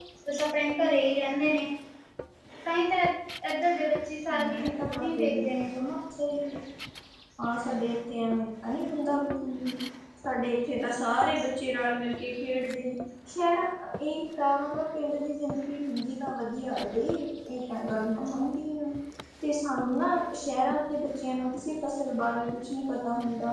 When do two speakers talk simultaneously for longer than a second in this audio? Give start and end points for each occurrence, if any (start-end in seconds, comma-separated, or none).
4.3-5.7